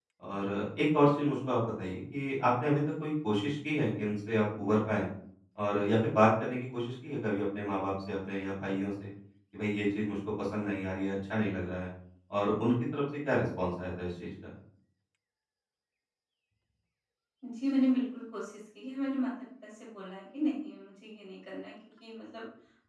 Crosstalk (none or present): none